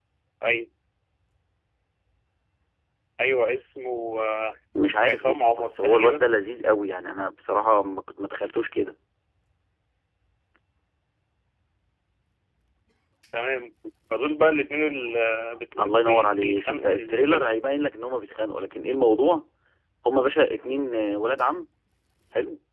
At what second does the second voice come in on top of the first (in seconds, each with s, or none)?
5.0 s